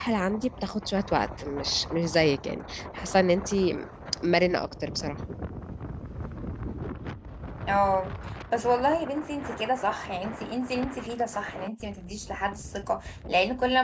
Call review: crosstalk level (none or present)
none